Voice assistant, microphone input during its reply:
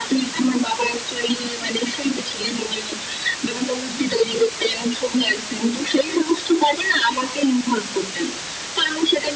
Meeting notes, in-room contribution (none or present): none